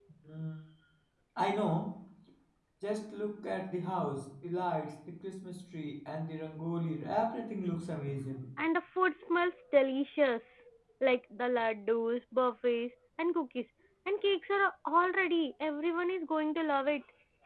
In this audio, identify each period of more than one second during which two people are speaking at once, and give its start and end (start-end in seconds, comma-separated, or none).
none